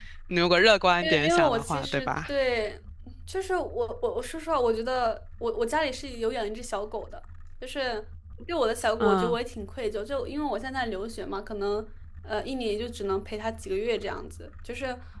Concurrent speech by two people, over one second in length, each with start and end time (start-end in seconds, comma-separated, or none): 1.0-2.3